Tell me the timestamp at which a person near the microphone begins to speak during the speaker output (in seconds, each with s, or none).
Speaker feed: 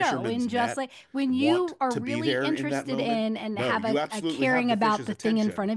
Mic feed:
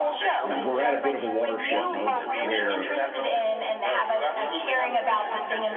0.4 s